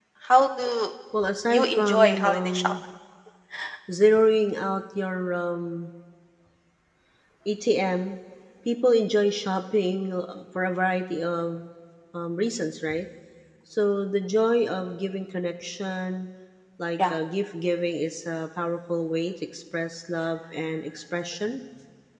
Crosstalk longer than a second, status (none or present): present